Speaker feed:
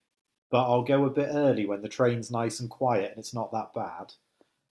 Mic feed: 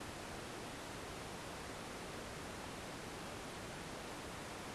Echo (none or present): none